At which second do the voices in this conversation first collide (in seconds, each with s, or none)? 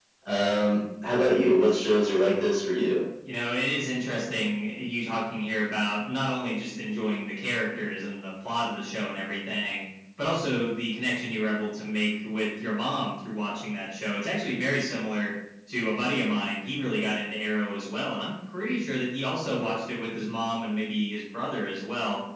none